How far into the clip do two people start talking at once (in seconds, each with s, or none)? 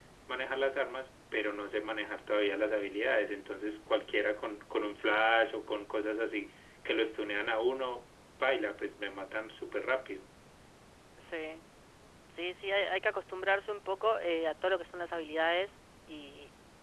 none